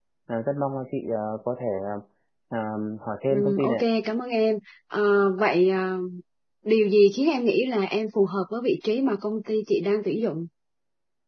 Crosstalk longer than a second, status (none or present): none